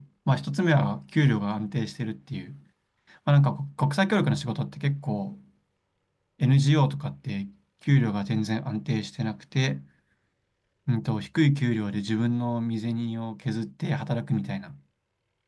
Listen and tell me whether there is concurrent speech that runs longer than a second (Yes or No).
No